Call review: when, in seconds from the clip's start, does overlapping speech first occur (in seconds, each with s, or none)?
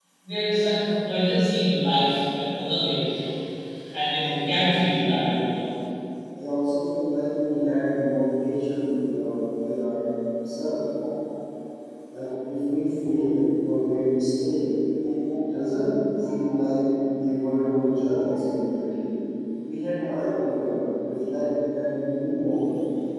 4.2 s